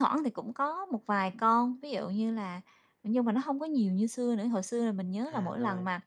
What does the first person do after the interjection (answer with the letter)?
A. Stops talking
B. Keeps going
B